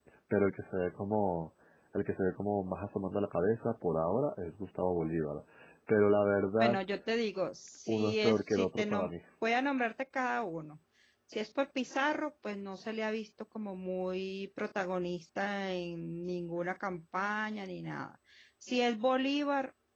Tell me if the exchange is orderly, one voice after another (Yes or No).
No